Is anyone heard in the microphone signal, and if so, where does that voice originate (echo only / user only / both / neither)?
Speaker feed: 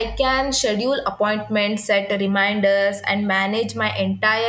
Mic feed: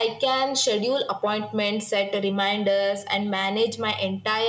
echo only